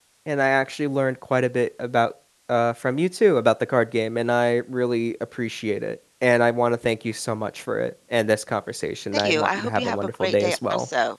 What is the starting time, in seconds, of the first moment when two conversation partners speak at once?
9.1 s

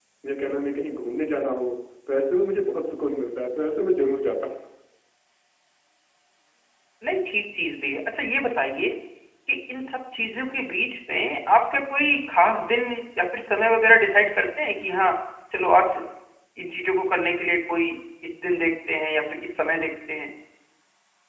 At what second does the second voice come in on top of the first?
none

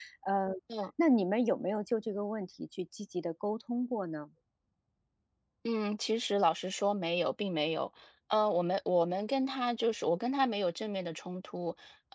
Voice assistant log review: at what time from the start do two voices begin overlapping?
none

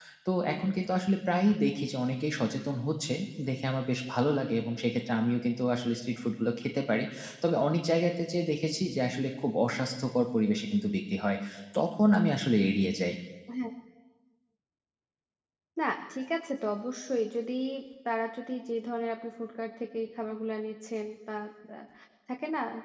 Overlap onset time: none

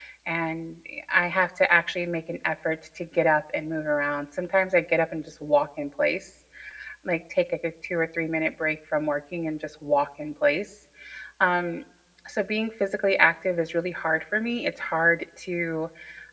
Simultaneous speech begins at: none

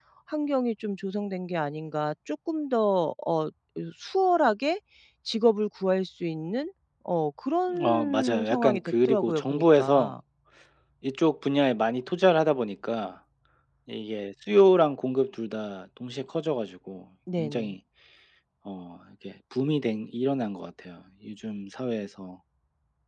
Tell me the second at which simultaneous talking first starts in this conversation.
7.8 s

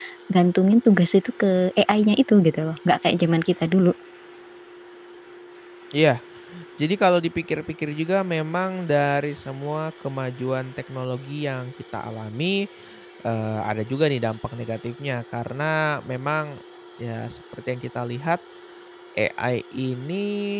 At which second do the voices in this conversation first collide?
none

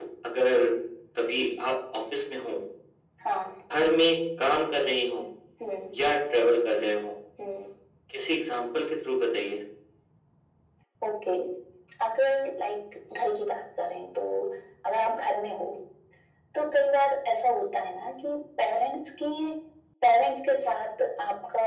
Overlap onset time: none

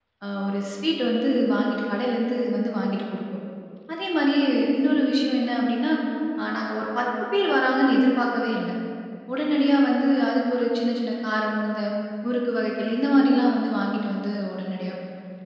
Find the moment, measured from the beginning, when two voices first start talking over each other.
none

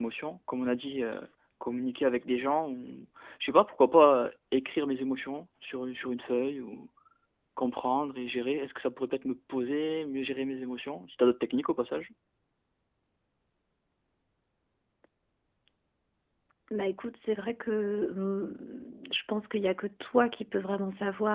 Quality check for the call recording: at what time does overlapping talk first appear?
none

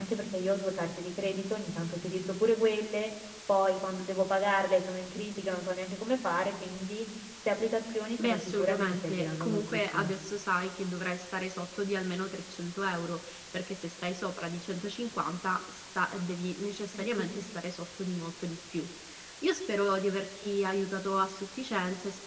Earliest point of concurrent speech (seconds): 8.2 s

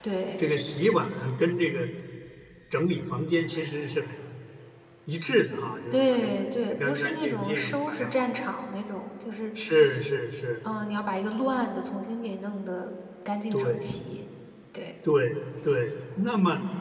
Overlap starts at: 5.9 s

